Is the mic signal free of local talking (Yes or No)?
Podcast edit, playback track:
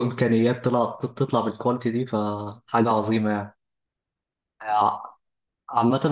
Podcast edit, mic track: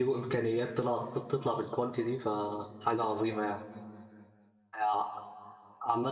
Yes